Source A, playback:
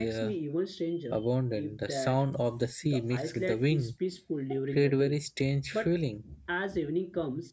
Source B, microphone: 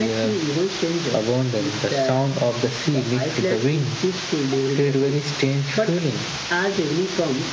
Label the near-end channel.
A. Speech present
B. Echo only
B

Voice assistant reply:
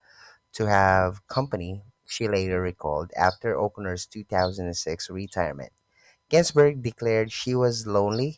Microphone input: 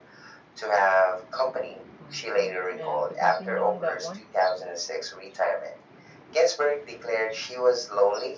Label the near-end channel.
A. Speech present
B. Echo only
A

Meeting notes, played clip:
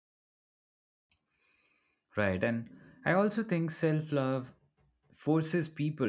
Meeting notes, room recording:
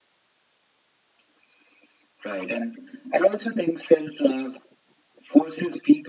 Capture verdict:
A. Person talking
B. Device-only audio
B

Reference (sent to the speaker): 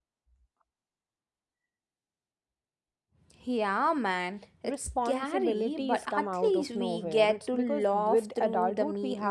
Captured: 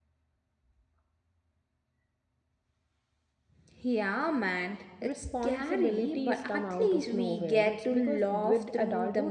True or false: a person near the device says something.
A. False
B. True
A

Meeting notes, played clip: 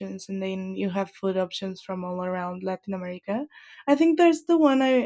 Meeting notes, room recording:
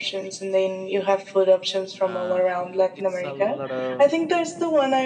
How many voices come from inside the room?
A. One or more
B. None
A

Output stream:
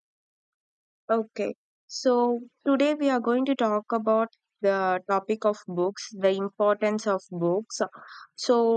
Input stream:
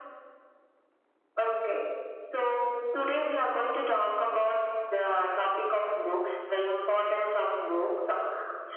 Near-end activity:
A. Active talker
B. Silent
B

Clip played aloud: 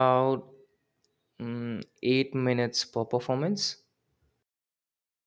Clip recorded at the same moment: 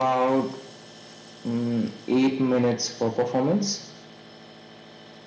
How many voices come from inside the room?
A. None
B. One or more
A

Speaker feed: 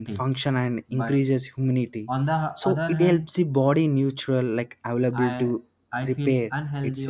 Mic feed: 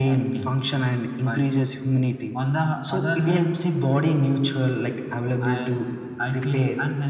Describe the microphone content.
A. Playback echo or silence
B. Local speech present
A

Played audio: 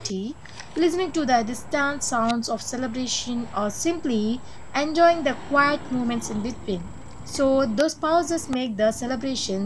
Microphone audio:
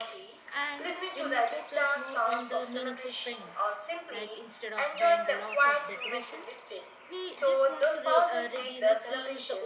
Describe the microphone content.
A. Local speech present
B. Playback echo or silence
A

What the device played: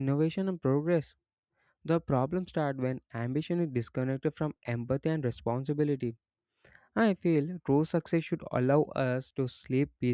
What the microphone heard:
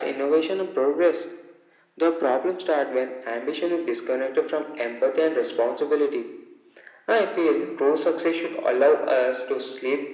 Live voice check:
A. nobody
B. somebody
A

